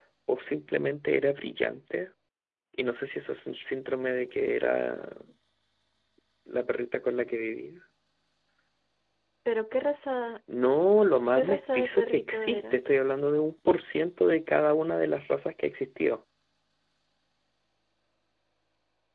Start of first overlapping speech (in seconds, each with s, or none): 11.3 s